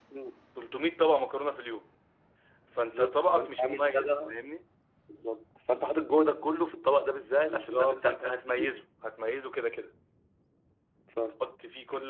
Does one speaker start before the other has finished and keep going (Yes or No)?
Yes